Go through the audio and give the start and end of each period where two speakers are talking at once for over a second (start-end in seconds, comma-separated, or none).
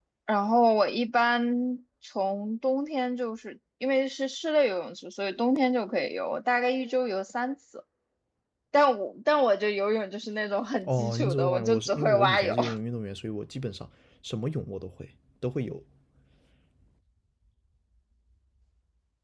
10.8-12.5